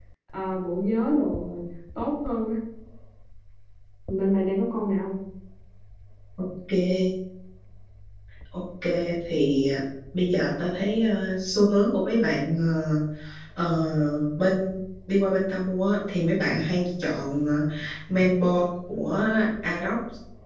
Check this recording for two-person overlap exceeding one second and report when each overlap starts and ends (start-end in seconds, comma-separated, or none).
none